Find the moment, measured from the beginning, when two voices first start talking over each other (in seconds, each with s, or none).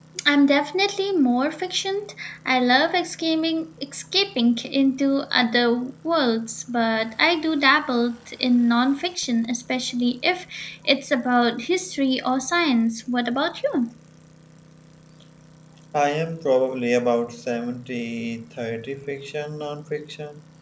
none